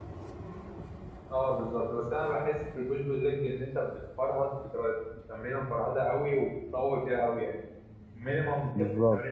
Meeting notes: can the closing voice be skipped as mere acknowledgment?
Yes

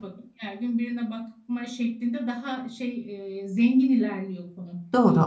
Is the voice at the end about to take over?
Yes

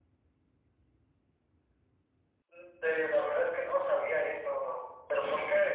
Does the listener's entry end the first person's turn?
No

